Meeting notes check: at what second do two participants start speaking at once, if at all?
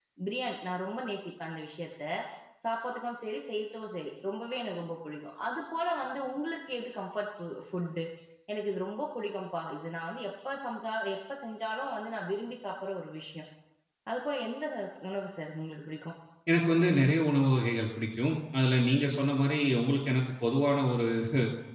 none

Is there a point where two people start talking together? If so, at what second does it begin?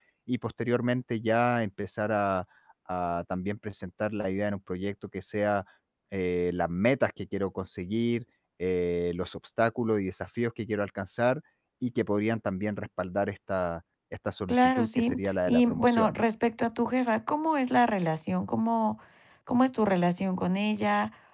14.5 s

